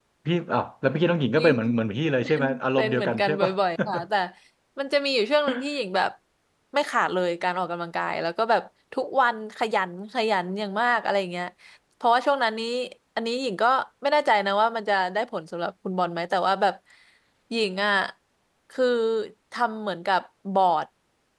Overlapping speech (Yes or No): Yes